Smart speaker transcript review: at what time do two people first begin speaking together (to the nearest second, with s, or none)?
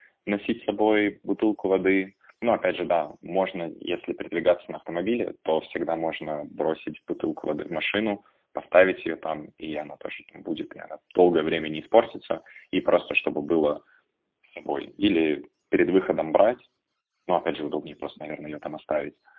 none